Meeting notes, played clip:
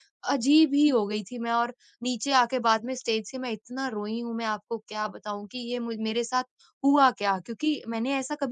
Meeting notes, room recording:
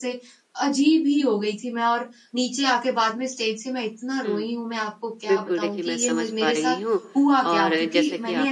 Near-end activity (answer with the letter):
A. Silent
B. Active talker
B